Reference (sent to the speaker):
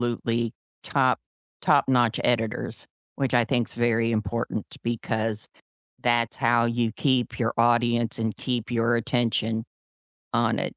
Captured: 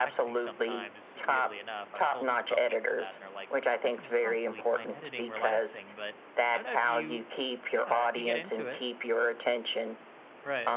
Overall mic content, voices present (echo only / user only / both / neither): both